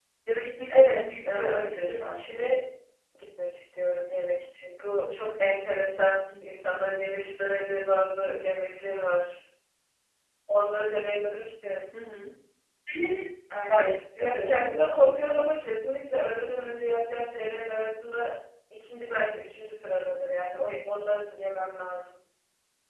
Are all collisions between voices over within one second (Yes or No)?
No